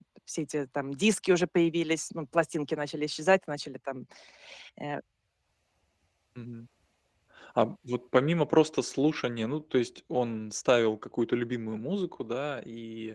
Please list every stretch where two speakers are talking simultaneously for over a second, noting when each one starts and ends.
none

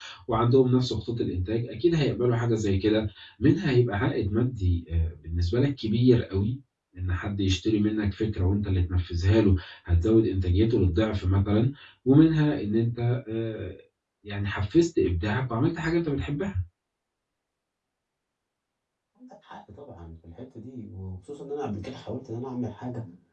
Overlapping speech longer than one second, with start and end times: none

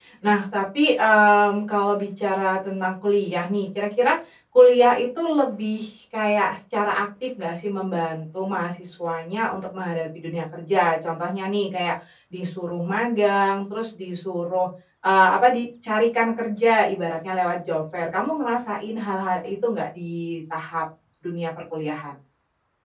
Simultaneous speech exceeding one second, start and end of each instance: none

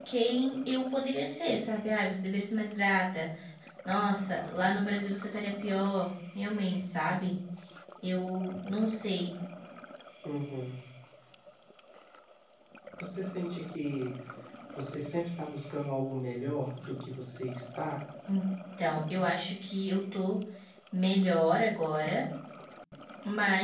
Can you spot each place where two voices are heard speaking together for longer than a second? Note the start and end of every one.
none

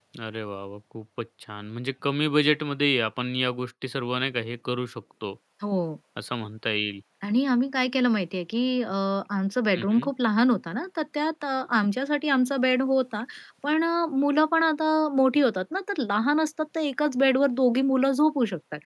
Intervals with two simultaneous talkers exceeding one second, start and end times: none

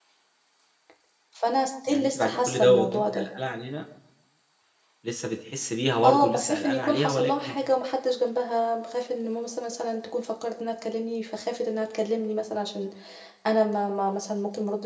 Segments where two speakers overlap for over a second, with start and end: 1.9-3.3, 6.0-7.5

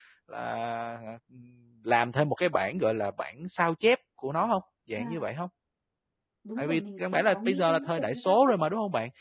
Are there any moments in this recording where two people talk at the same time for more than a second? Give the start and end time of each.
6.6-8.6

